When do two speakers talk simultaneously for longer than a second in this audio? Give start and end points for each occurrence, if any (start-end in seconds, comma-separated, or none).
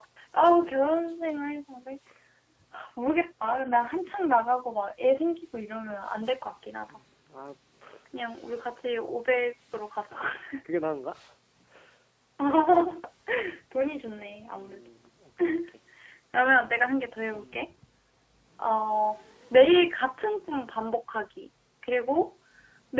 none